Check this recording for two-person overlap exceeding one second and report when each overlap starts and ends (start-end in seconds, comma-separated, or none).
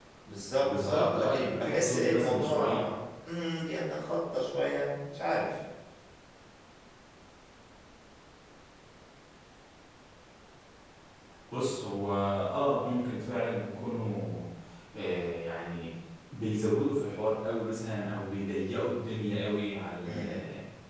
0.6-2.8